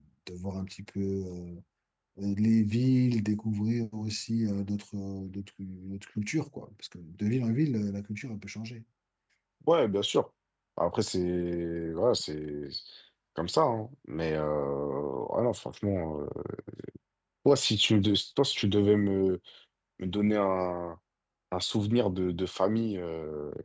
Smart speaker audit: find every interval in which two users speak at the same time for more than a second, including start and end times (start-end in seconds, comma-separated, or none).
none